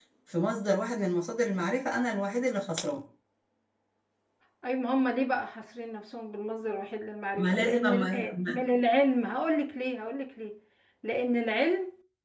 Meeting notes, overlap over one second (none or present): present